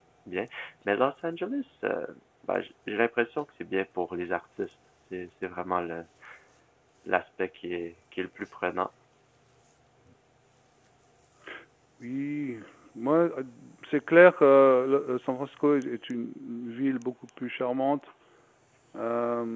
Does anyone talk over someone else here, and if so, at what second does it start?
none

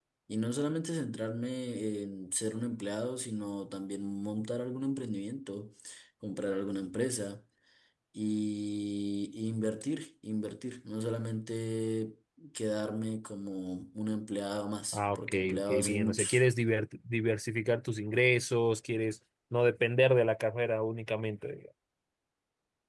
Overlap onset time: 14.9 s

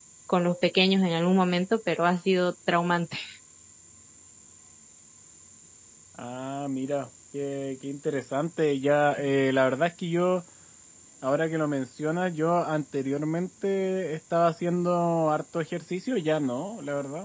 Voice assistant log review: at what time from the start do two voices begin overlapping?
none

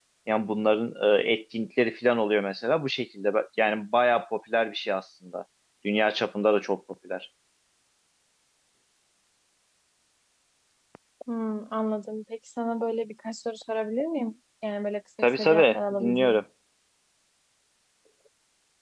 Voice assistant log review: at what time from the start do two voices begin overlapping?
15.2 s

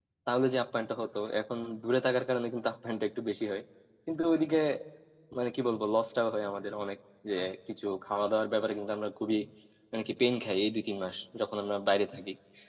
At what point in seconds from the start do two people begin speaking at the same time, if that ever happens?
none

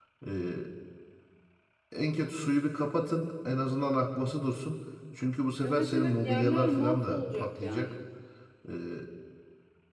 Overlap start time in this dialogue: 5.6 s

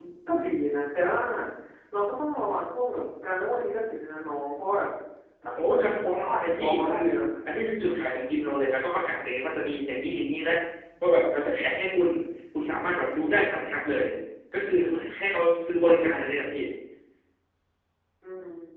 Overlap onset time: 5.6 s

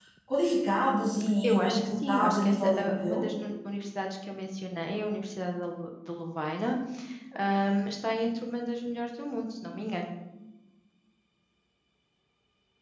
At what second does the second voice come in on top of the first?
1.4 s

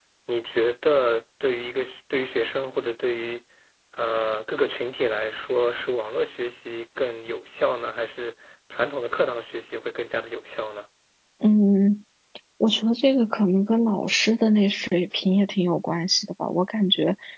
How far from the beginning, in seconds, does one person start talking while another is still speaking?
none

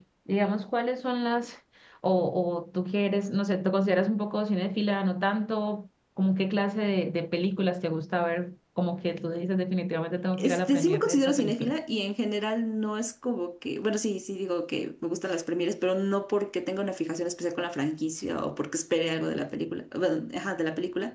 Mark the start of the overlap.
10.3 s

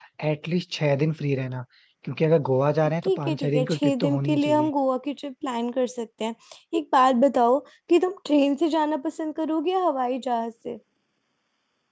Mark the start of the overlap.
3.0 s

